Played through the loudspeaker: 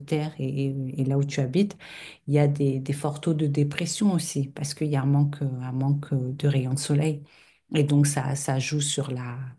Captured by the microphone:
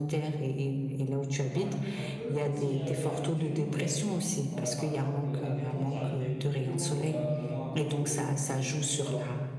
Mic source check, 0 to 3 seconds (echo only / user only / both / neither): both